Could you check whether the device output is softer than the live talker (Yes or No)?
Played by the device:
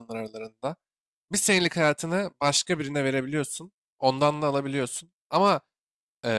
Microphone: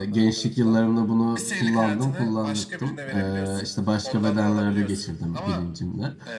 Yes